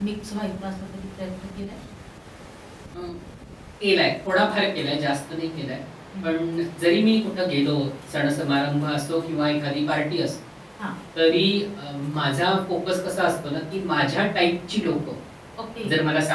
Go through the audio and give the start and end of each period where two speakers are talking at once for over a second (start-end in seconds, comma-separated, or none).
none